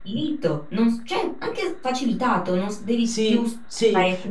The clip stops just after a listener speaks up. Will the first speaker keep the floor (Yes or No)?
No